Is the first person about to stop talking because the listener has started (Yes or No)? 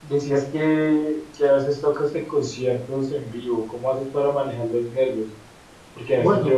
No